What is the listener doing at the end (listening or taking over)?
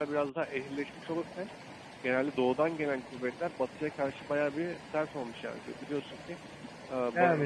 taking over